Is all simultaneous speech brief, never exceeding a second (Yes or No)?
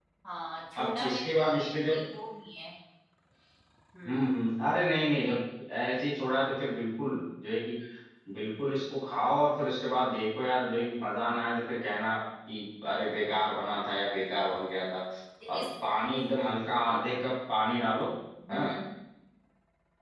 No